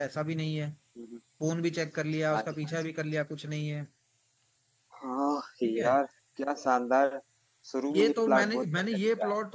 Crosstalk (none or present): present